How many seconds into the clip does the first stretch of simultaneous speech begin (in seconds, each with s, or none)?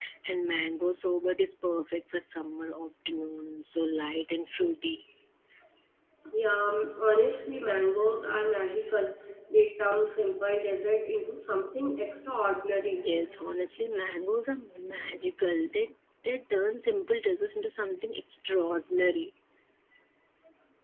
none